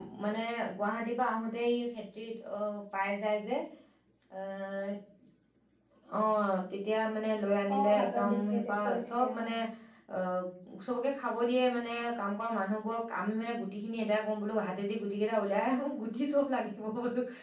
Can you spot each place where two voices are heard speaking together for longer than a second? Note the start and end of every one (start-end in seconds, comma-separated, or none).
7.8-9.5